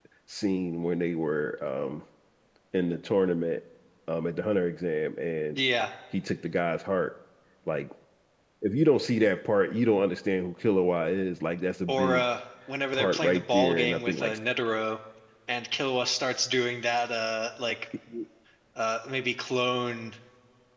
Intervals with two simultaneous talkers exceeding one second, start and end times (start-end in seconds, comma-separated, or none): 12.9-14.4